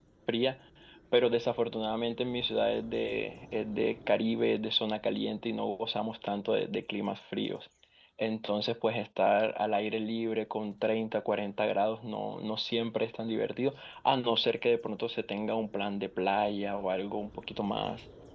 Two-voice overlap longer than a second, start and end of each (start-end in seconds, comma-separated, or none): none